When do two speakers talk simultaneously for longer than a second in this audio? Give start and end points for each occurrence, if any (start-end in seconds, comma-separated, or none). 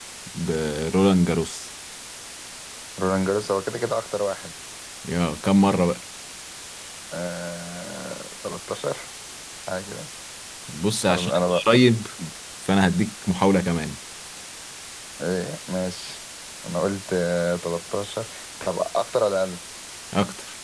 none